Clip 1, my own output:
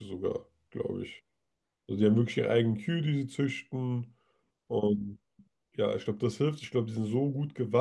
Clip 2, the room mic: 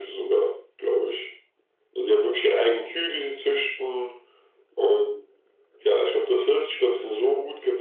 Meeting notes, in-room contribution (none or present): none